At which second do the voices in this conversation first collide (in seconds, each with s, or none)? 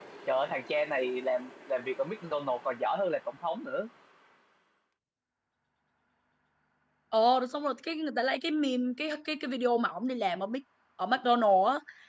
none